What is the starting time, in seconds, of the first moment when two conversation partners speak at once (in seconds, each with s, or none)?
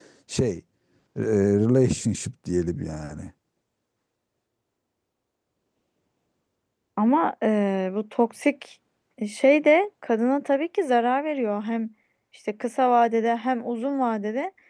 none